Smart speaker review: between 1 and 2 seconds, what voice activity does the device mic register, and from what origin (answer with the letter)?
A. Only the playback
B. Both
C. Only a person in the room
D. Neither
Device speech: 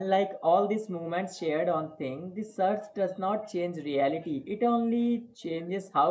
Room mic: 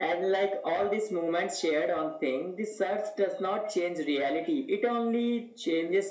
A